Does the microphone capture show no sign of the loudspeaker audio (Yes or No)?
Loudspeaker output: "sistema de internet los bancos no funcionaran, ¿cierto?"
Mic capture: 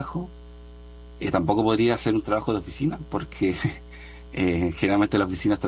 Yes